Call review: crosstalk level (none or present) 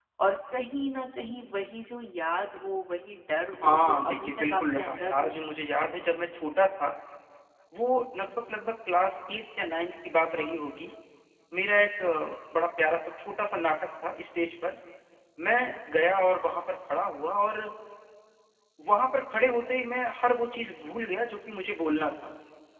present